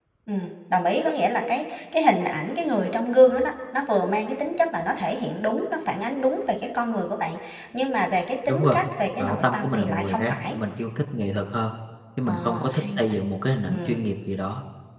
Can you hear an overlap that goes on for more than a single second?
Yes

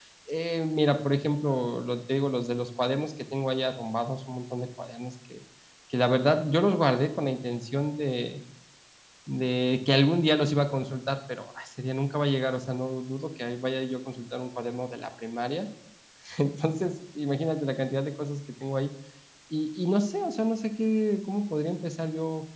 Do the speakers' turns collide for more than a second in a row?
No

